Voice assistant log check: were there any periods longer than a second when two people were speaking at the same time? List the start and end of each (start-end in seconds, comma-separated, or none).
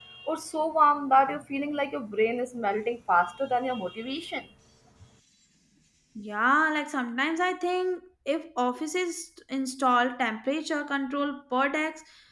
none